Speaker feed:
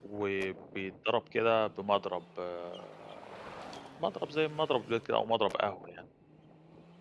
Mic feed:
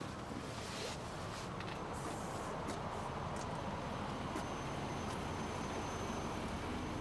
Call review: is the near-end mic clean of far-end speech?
Yes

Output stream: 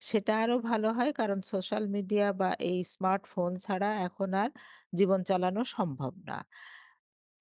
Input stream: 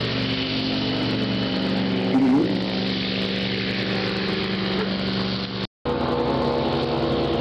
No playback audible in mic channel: Yes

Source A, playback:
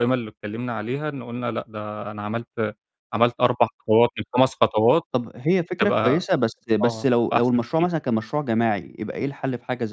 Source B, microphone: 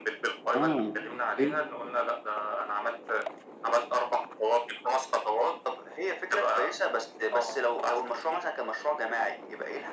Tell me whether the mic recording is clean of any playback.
No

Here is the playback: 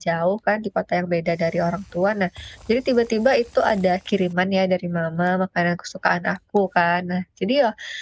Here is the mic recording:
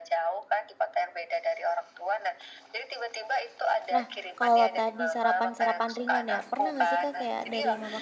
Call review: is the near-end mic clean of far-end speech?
No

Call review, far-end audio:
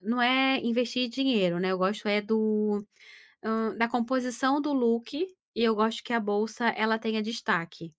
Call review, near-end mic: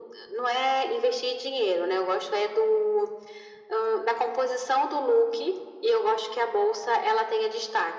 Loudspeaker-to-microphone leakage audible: Yes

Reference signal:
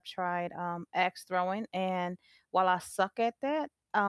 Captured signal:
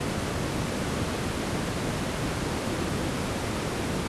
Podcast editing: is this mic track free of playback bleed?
Yes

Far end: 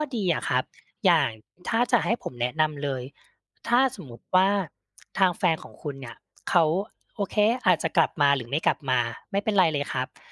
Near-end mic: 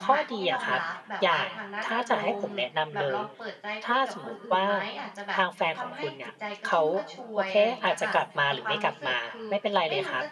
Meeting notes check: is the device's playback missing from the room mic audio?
No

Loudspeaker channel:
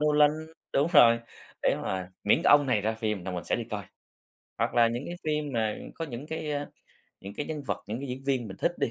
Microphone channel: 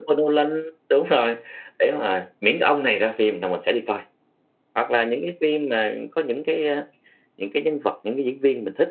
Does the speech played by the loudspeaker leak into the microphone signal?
Yes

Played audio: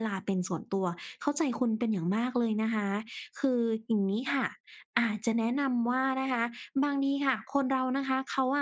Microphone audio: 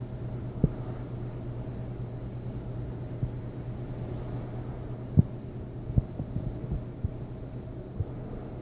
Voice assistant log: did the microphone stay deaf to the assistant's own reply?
Yes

